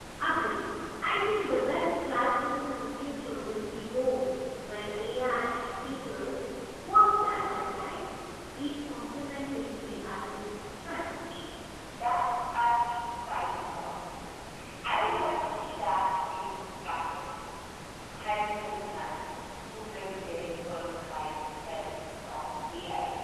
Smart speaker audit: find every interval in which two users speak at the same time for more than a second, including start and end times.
none

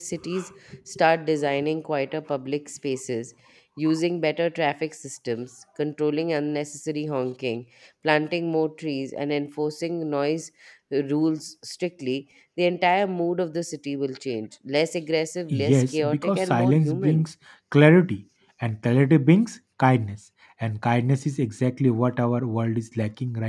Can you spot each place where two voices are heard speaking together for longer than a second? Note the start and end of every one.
15.5-17.2

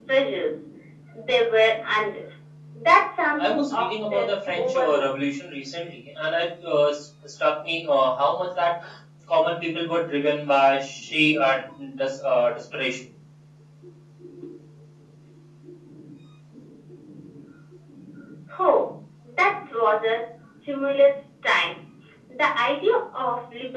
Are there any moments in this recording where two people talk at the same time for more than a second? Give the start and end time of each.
3.4-5.0

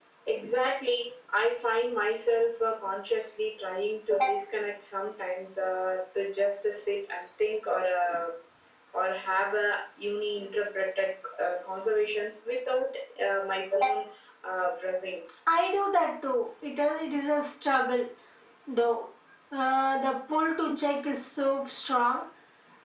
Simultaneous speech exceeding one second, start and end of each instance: none

